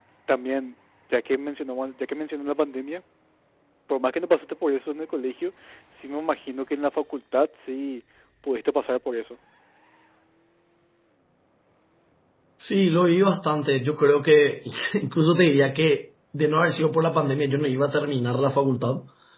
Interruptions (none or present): none